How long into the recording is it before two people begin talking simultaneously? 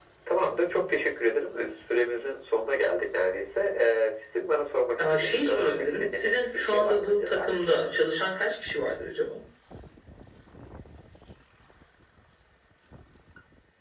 5.0 s

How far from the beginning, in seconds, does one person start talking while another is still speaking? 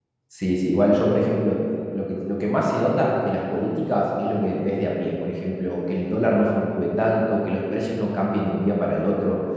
none

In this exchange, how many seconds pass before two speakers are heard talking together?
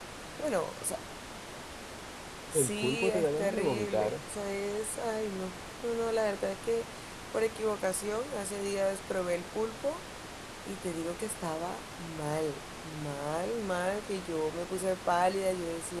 2.5 s

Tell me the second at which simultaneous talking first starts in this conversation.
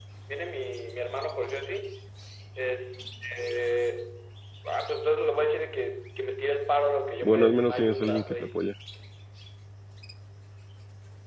7.2 s

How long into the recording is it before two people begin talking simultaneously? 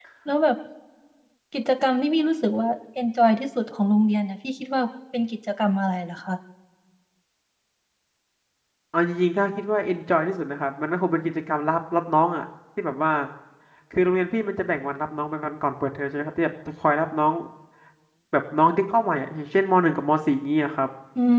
none

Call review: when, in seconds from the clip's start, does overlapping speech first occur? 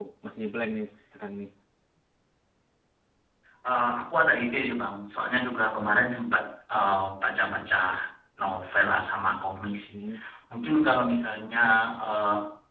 none

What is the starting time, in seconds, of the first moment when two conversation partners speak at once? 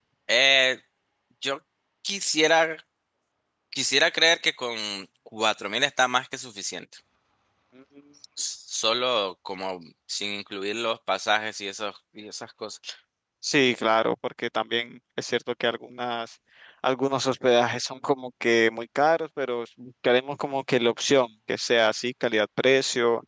none

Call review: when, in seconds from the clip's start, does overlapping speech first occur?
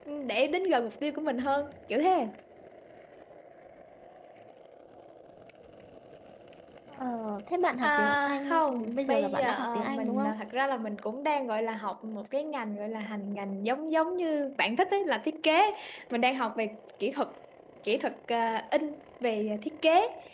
7.8 s

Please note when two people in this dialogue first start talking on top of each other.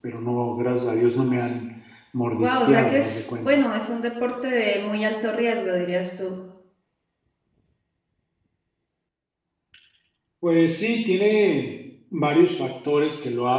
2.3 s

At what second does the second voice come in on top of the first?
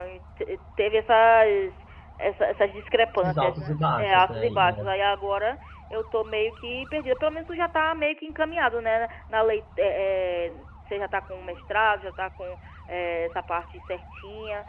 3.2 s

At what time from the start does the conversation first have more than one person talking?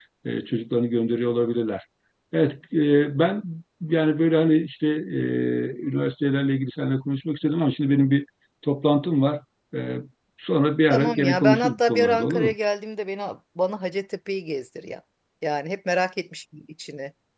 10.9 s

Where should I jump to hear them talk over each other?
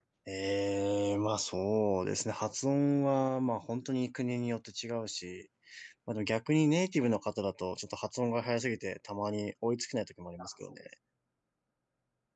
none

